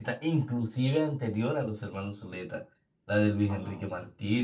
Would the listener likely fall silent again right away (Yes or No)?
Yes